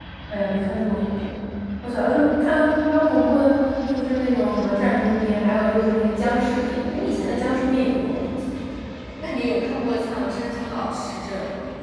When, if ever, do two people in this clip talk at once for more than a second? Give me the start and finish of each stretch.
none

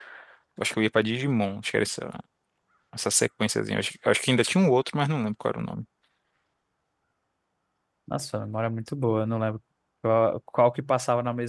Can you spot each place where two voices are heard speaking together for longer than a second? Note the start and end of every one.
none

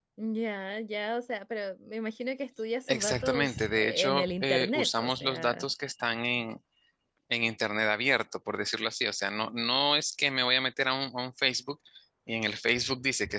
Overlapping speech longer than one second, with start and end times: 2.9-5.6

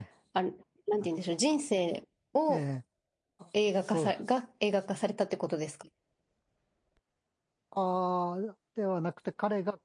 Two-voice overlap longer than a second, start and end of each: none

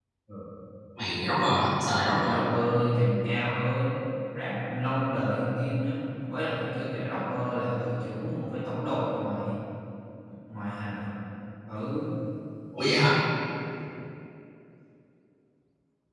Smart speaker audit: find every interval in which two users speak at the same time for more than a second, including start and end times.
none

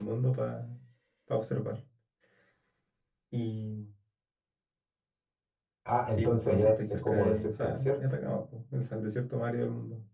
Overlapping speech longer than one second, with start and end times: 6.1-8.0

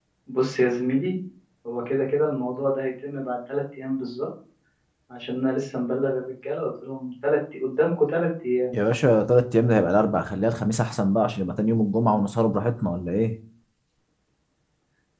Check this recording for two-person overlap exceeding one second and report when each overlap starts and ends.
none

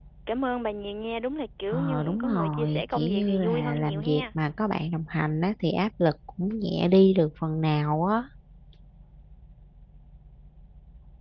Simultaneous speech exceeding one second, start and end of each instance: 1.7-4.2

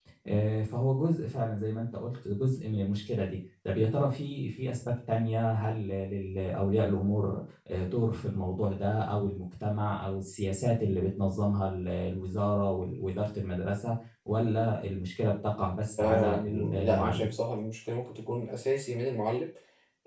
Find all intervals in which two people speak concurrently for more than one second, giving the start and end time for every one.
16.0-17.3

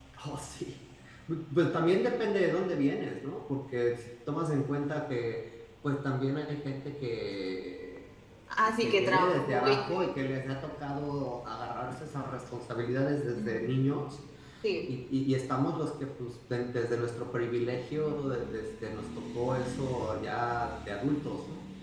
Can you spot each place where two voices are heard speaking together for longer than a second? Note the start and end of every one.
8.8-10.1

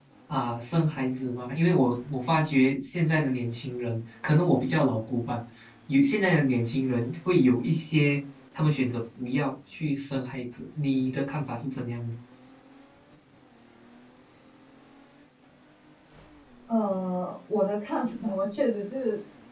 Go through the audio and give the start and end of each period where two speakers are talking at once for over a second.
none

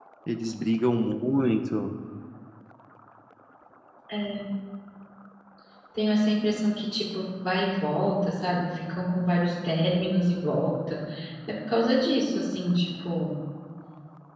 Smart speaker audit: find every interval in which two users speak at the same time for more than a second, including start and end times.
none

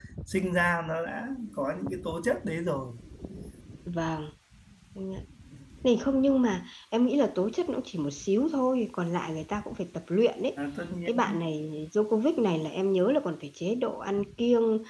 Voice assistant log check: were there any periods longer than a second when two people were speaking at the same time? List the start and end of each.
none

